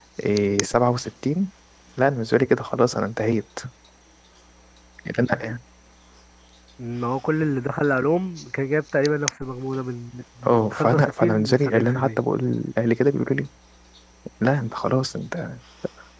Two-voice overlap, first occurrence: 10.4 s

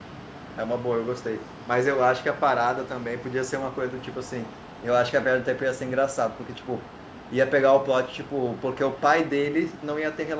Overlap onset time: none

